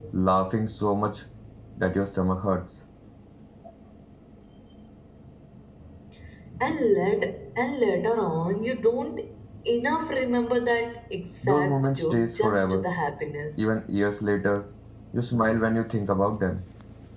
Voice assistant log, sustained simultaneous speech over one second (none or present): present